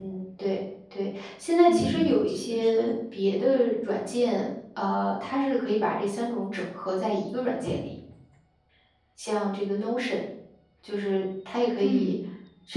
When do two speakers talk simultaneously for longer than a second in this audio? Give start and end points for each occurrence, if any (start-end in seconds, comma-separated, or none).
1.7-2.9